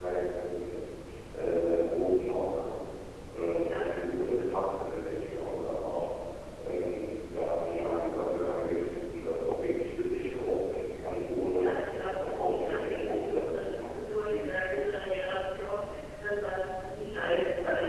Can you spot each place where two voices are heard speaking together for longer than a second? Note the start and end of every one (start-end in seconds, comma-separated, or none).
12.2-13.8